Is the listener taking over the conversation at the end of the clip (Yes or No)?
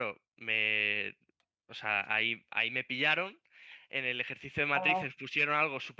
No